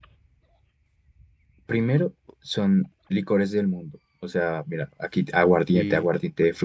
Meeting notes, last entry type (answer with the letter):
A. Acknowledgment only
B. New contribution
A